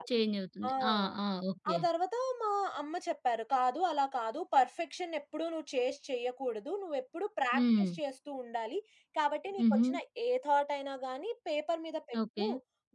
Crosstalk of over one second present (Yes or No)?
No